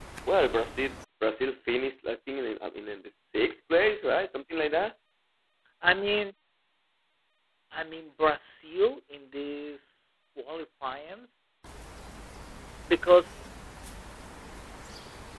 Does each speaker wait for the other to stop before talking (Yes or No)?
Yes